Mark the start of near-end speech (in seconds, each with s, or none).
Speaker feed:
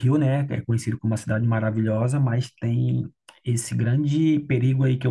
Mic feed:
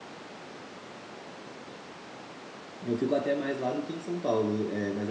2.8 s